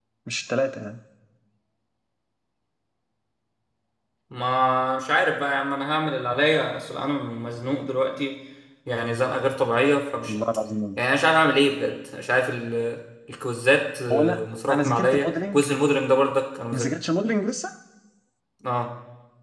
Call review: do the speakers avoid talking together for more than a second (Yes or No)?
No